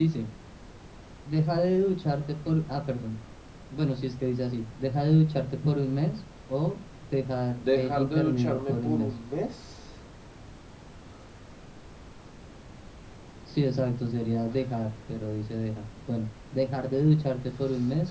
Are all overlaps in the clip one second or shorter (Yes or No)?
No